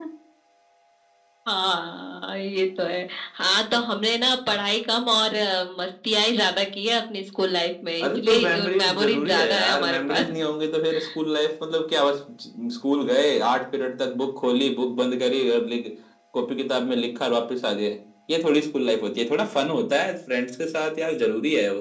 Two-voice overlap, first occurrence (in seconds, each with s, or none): 8.0 s